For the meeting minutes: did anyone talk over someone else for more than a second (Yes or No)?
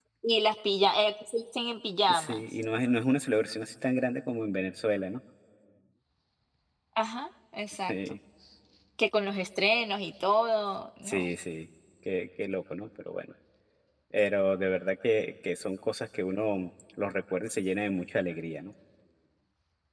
No